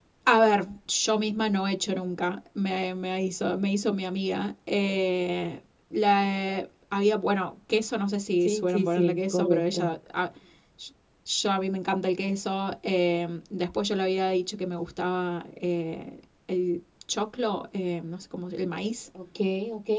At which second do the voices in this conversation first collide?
8 s

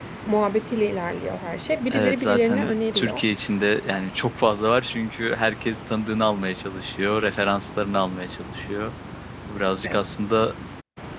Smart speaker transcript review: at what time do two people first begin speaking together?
2 s

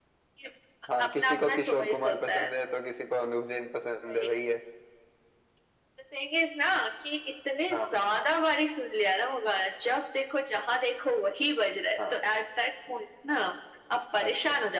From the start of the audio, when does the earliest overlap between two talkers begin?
1 s

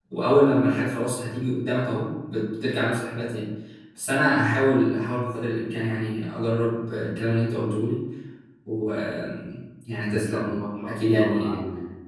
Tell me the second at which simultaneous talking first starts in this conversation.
10 s

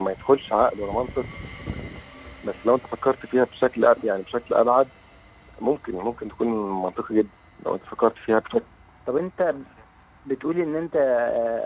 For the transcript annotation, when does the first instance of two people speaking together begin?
none

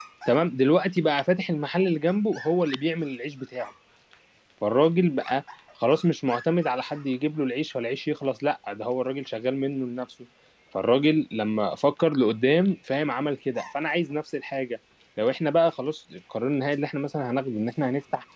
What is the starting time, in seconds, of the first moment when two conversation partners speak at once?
none

